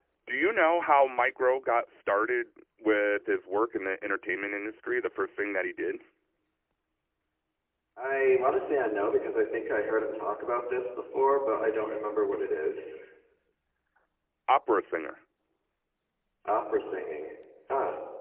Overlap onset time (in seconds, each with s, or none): none